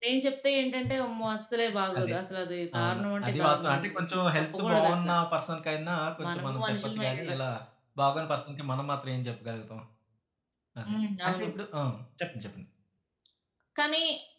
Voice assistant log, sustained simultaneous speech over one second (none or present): present